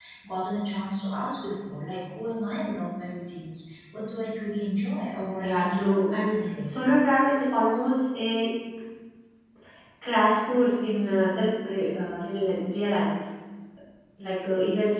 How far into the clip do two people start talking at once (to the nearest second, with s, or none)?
5 s